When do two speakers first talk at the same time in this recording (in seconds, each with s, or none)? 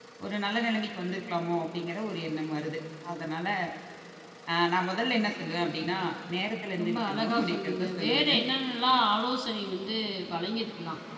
6.8 s